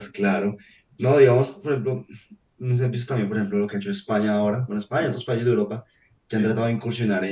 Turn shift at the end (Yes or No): No